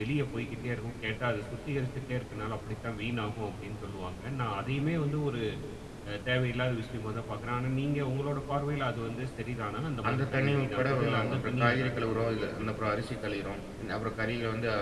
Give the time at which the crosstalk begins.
10.0 s

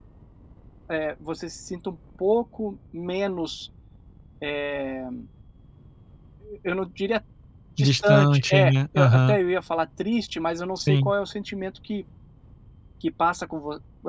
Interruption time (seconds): 7.8 s

